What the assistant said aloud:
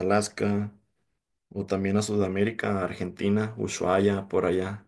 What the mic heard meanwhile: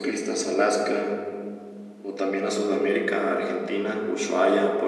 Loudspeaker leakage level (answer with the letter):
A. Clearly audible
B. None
A